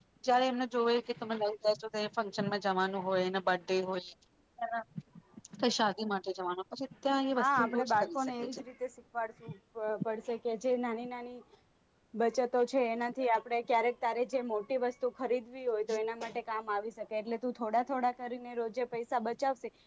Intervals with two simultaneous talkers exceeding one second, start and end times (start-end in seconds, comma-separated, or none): 7.4-8.6